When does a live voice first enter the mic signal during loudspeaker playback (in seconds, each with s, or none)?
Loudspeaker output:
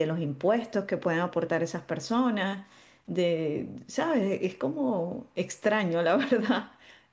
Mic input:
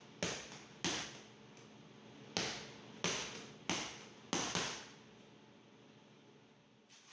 none